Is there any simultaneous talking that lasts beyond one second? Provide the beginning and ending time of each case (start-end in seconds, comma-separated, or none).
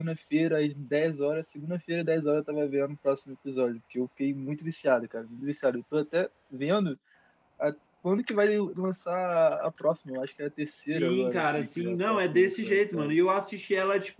10.9-13.2